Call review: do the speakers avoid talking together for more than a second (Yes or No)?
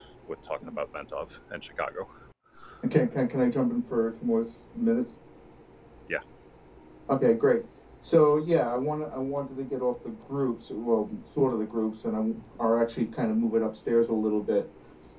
Yes